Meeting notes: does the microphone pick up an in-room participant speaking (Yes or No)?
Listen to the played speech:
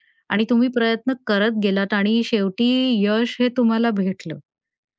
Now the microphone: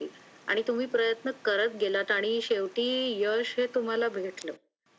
No